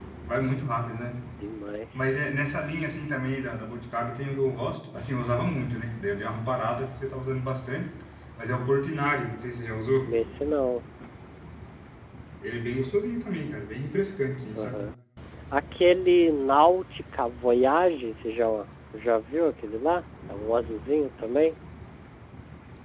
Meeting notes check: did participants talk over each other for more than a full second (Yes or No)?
No